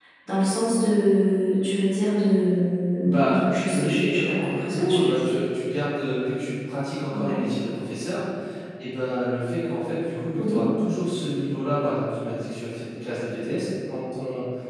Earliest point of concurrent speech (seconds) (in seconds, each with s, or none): 3.0 s